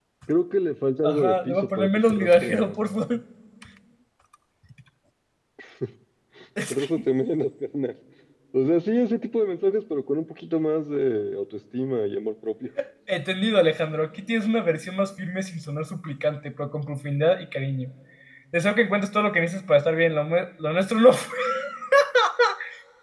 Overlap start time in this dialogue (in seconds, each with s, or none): 1.0 s